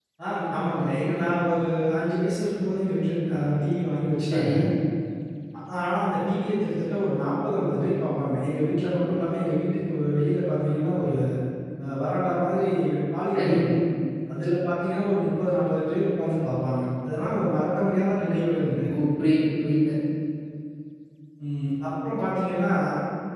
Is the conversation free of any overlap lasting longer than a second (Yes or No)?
Yes